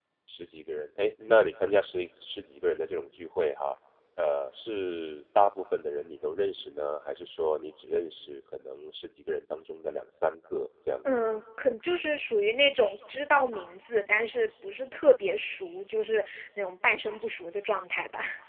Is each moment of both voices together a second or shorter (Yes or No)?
Yes